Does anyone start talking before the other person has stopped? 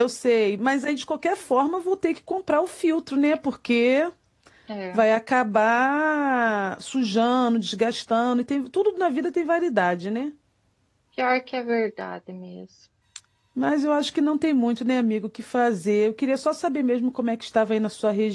No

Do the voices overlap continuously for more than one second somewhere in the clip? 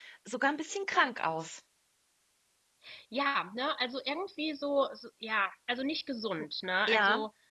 No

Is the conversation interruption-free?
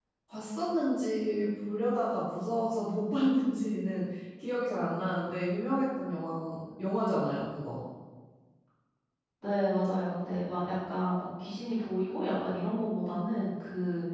Yes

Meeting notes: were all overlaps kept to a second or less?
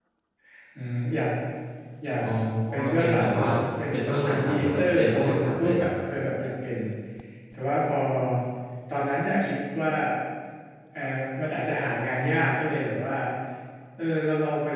No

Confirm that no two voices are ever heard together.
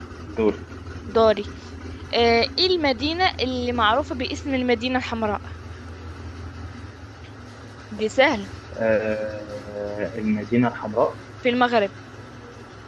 Yes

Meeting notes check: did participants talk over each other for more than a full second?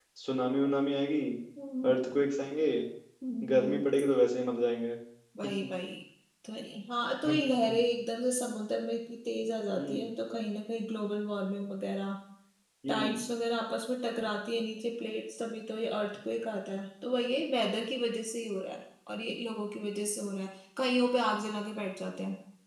No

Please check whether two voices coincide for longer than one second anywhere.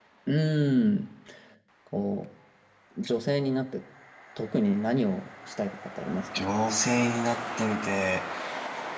No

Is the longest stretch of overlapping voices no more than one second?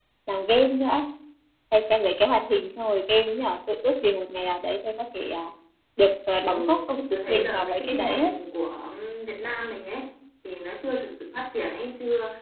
No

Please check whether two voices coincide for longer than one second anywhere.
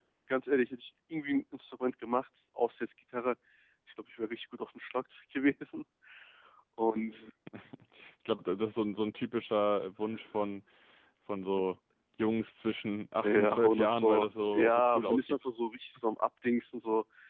Yes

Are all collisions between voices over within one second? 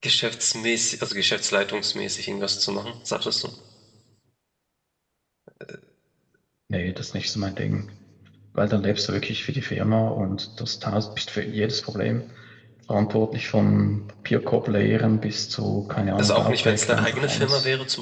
No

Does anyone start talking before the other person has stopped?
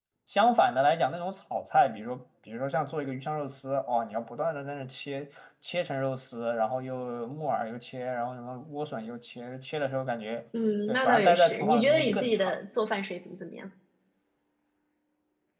Yes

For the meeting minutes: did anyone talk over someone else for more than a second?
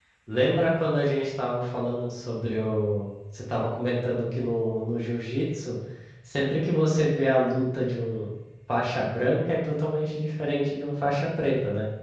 No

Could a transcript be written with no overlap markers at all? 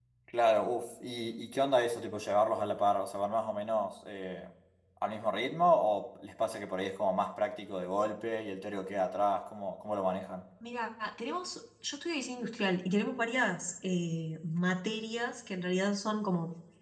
Yes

